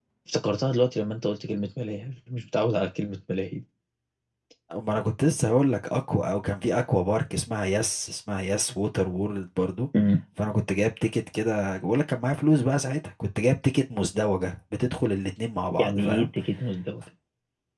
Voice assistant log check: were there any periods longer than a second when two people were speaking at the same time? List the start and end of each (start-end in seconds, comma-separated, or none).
none